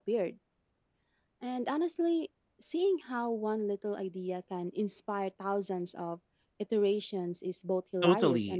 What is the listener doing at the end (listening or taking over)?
taking over